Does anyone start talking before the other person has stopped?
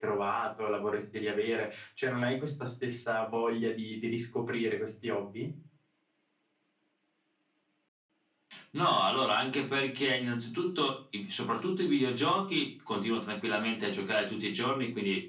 No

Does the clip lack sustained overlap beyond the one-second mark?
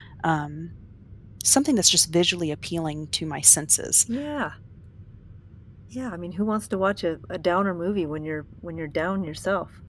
Yes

